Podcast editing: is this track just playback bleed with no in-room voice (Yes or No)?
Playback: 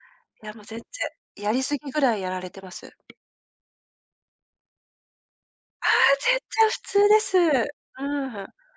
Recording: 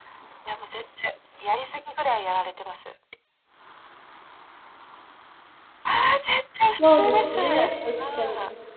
No